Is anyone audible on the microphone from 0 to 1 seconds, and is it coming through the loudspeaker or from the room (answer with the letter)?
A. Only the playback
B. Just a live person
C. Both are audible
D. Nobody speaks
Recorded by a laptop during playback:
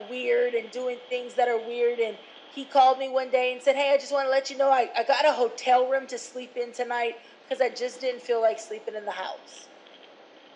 A